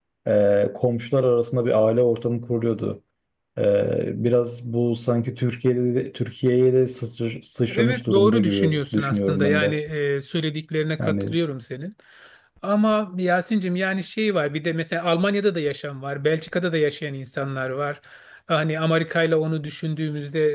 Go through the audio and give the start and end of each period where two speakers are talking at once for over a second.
7.7-9.8

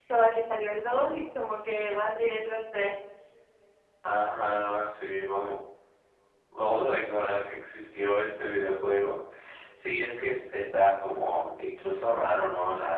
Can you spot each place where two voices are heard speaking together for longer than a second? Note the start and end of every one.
none

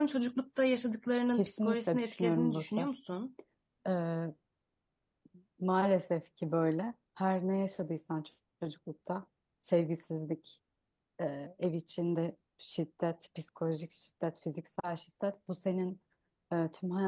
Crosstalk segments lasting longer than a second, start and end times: 1.4-2.9

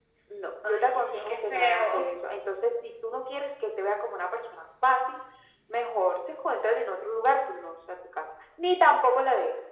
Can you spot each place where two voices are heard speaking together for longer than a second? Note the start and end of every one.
0.6-2.1

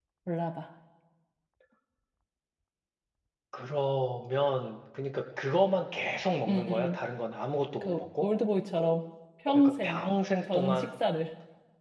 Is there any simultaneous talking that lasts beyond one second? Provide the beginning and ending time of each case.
none

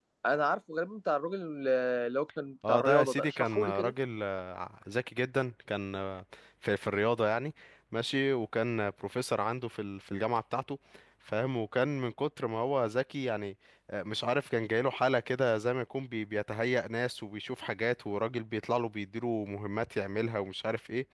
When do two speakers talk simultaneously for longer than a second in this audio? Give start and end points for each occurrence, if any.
2.7-3.9

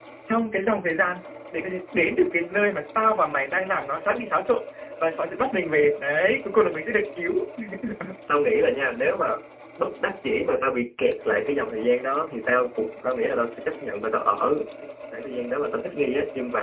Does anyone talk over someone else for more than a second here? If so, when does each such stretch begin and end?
none

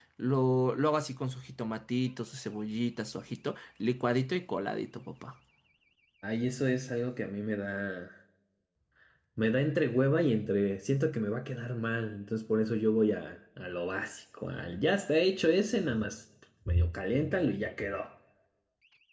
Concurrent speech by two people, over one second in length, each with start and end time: none

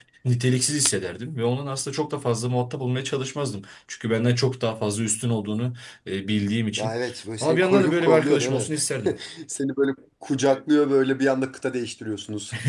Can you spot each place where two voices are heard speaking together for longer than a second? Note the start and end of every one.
7.4-8.7

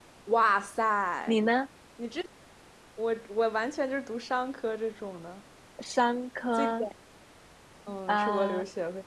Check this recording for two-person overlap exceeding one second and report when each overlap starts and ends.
none

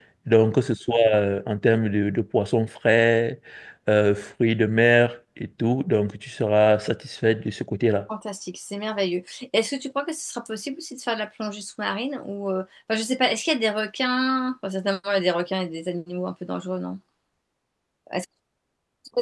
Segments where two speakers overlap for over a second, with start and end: none

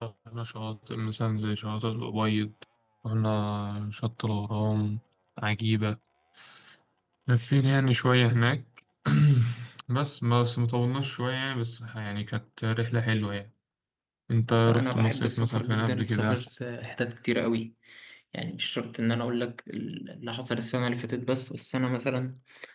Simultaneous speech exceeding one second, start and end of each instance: 14.7-16.4

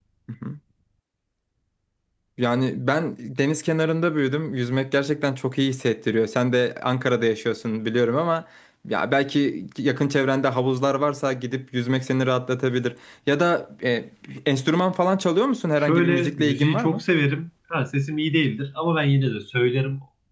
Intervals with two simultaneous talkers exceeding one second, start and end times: 15.8-17.0

